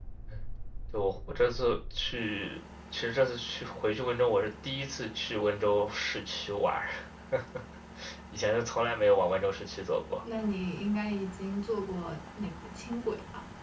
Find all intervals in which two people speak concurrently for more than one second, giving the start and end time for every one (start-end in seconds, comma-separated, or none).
none